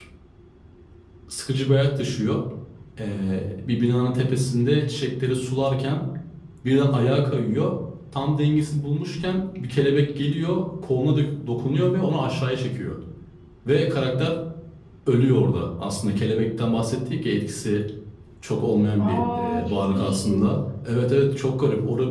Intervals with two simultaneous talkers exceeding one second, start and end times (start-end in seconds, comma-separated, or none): 19.0-20.4